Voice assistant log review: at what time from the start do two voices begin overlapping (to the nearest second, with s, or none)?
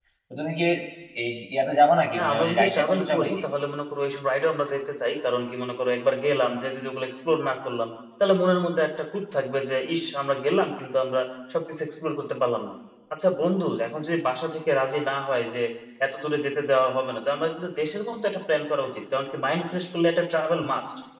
2 s